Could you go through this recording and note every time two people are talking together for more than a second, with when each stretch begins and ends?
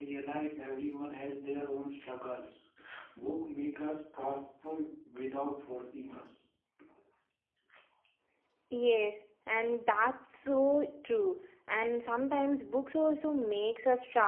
none

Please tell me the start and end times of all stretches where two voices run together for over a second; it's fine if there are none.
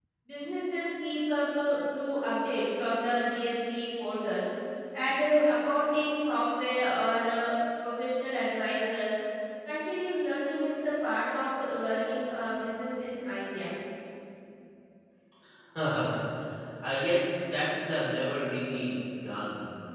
none

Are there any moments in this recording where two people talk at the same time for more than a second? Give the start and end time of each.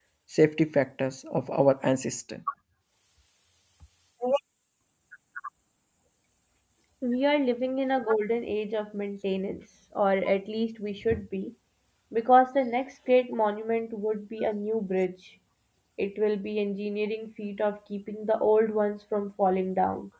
none

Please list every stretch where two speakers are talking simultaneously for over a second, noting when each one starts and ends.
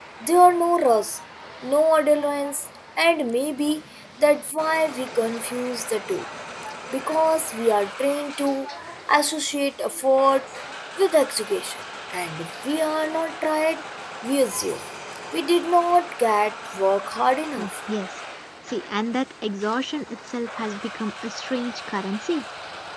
none

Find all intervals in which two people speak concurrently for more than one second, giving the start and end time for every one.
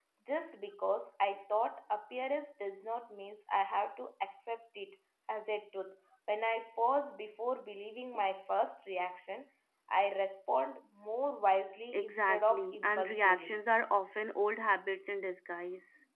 11.9-13.6

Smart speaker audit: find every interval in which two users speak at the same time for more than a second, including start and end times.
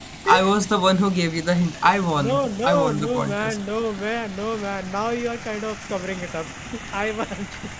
2.1-3.6

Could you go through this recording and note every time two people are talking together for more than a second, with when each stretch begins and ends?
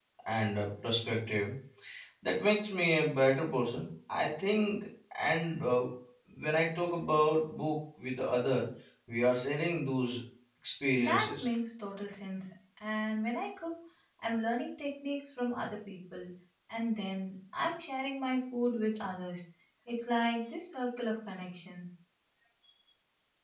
none

